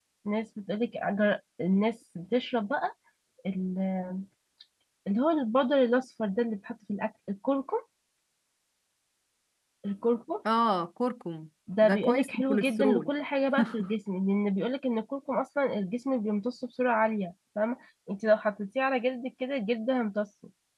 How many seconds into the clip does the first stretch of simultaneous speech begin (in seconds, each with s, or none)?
11.8 s